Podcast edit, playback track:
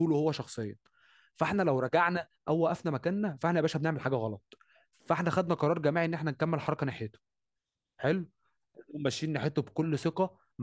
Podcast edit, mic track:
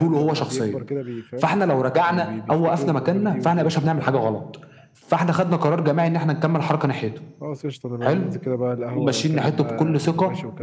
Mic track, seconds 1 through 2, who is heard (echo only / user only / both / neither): both